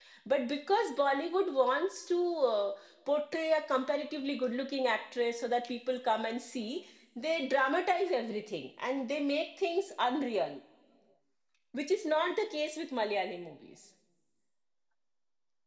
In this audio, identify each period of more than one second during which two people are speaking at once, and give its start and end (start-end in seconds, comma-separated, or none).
none